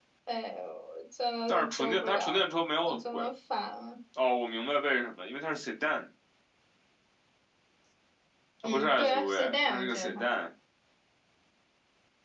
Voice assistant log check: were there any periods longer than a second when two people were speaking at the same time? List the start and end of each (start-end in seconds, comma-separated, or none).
1.5-3.3, 8.6-10.2